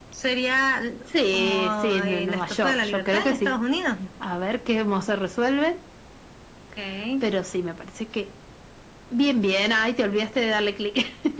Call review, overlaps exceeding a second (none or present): present